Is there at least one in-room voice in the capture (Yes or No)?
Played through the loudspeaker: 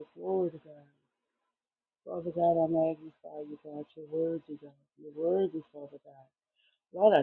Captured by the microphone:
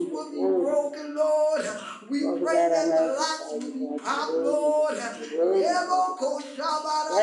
Yes